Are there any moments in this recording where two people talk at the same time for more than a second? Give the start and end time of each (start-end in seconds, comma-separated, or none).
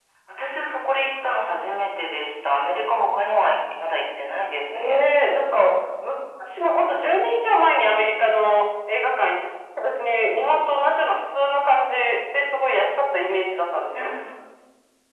none